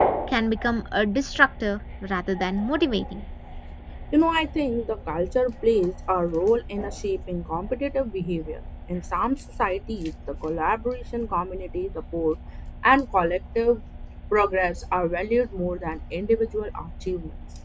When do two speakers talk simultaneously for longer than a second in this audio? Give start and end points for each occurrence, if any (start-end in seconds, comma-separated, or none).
none